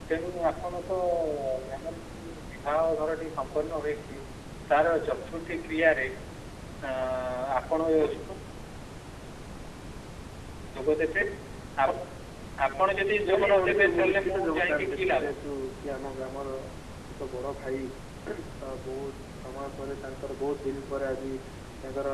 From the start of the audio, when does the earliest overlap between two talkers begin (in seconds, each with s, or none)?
13.3 s